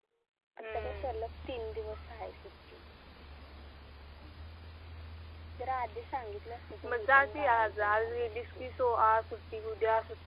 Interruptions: present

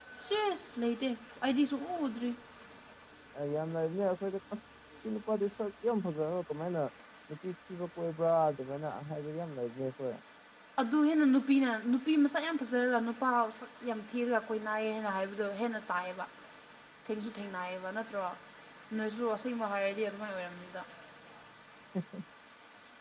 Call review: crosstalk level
none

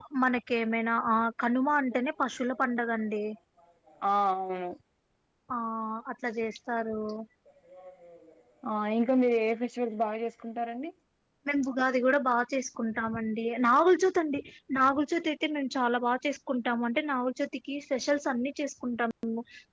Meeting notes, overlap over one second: none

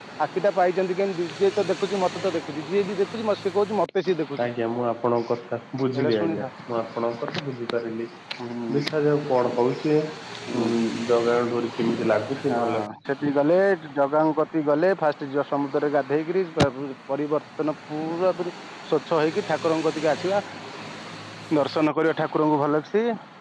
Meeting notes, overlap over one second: none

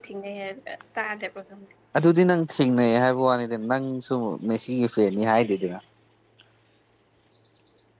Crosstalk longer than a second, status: none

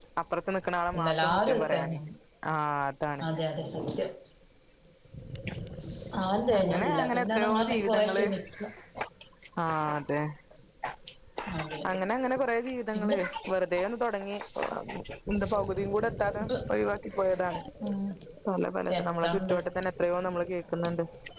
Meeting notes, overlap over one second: present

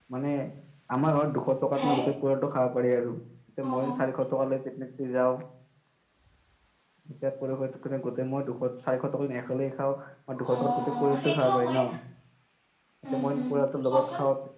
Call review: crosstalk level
present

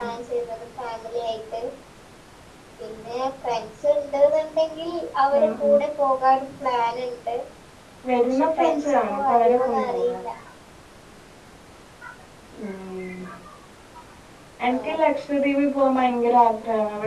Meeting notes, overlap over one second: present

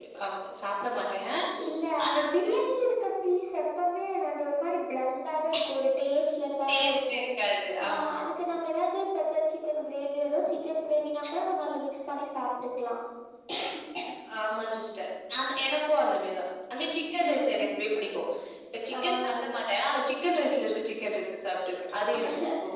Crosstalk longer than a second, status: none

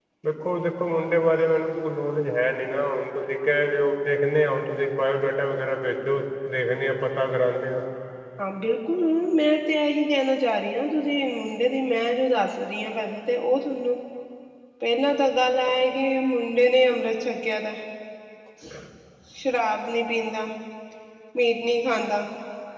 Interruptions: none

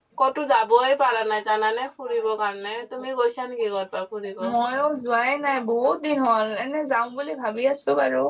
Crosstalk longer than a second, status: none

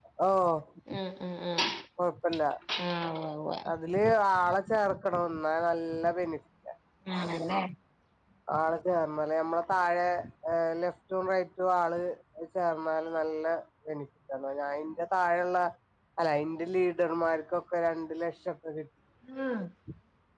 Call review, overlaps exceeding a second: none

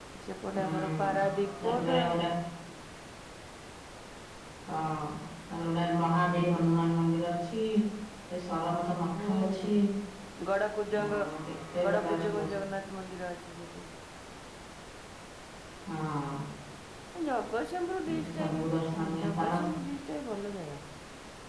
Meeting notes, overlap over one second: present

